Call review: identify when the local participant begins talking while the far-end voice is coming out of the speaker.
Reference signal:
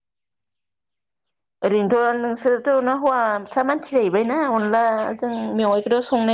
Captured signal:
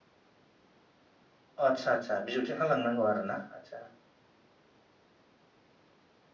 1.7 s

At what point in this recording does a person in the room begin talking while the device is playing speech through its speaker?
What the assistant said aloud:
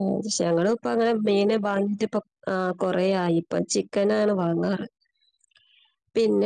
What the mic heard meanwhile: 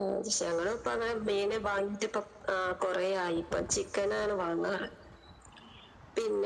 none

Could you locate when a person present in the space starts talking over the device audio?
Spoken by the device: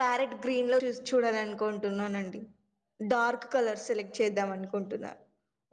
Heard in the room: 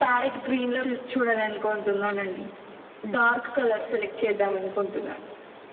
none

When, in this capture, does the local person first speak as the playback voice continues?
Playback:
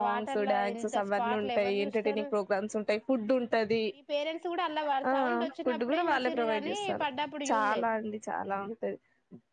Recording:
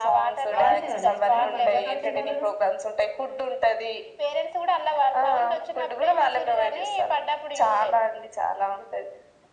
0.5 s

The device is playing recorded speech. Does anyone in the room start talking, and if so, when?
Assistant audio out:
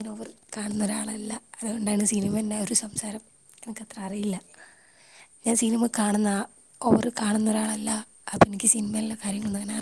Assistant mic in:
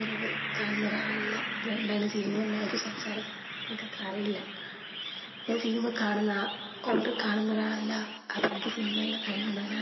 none

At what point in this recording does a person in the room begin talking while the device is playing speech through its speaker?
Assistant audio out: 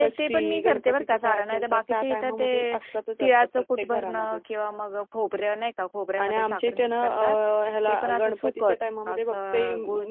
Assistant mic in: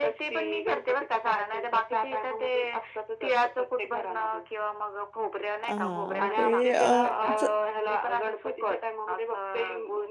5.7 s

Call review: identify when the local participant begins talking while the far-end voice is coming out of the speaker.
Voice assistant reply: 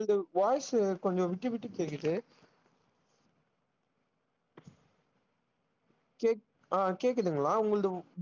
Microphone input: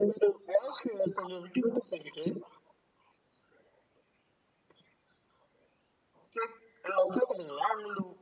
none

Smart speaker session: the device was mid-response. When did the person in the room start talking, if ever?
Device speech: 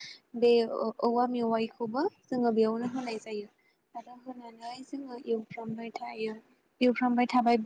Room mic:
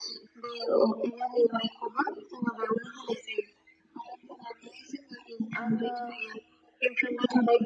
5.6 s

